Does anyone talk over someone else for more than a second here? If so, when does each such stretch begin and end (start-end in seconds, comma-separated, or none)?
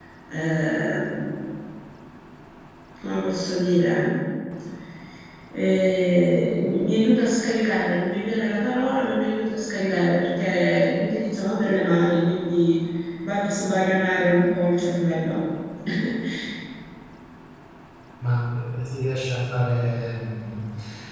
none